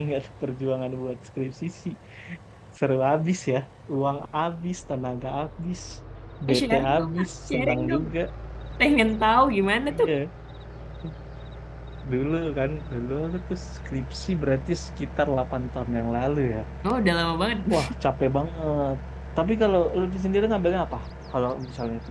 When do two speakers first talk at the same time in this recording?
6.5 s

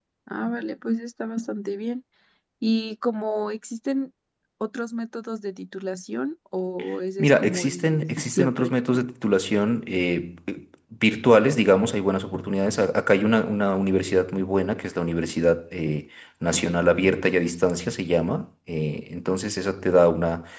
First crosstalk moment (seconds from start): 7.2 s

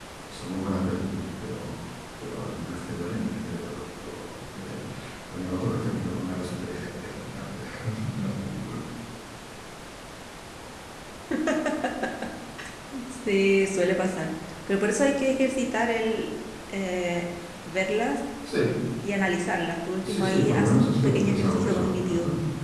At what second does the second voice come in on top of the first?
20.0 s

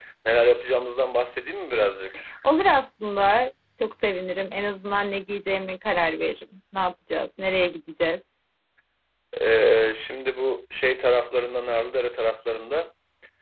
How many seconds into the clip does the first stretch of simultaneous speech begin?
none

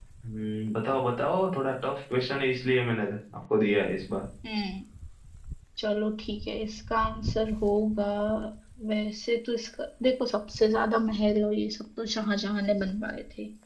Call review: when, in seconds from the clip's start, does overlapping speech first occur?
none

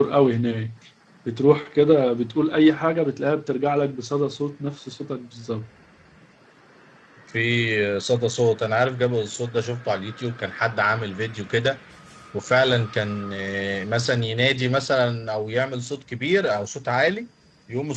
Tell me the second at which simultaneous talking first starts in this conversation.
none

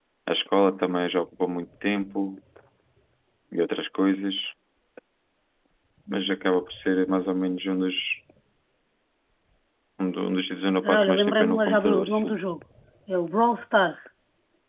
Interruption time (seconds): 10.8 s

